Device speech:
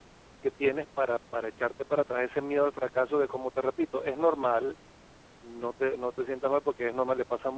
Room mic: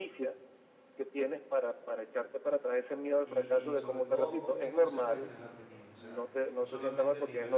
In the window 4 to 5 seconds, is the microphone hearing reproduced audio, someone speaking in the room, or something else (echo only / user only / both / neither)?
both